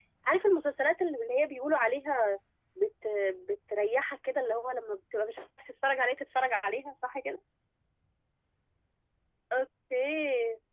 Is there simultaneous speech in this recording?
No

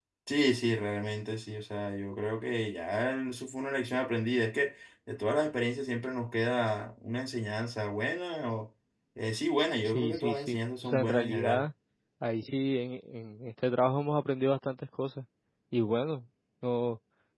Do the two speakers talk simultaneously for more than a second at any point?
Yes, from 9.8 s

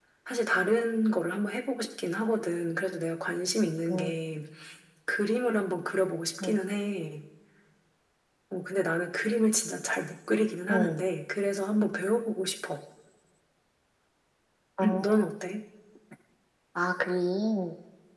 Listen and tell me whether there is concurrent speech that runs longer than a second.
No

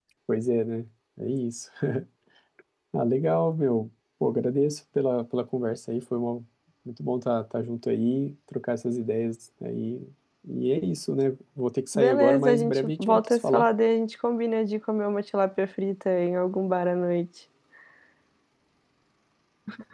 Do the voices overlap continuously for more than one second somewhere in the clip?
Yes, from 12.0 s

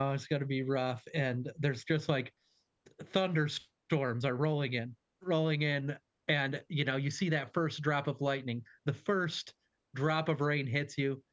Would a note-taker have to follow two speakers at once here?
No

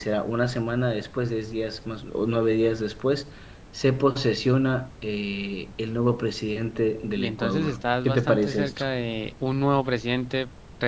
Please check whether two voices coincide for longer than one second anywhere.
Yes, from 7.2 s

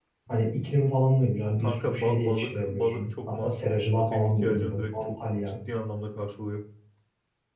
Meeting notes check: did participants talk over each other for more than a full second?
Yes, from 1.6 s

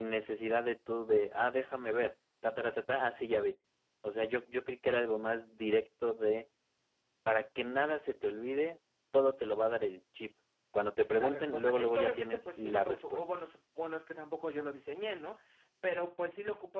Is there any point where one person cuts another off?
Yes, from 11.2 s

